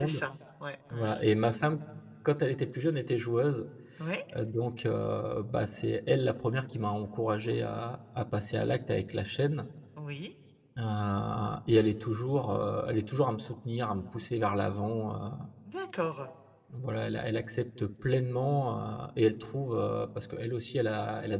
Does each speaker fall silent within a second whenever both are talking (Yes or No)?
Yes